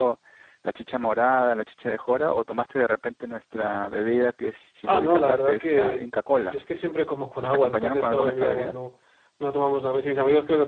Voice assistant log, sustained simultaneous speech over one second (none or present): present